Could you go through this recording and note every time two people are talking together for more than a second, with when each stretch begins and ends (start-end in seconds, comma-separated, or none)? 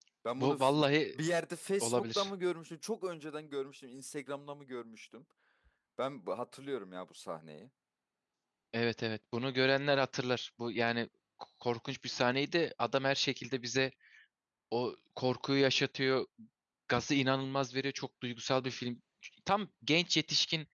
none